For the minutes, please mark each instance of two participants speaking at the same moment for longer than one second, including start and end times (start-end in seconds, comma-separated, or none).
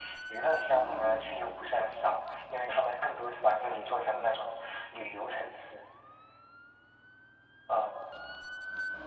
none